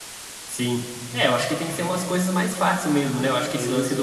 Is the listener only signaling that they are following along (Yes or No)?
Yes